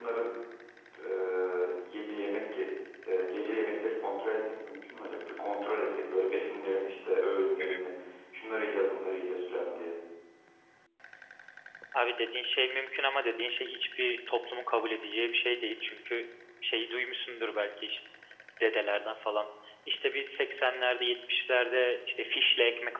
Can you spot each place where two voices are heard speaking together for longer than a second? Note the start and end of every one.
none

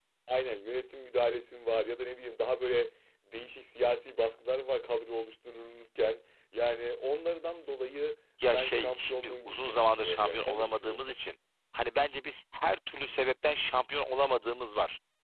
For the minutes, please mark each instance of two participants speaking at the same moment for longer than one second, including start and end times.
8.4-11.0

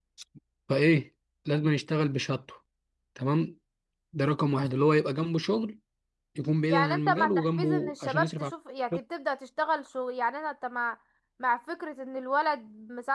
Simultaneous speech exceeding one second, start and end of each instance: 6.7-8.5

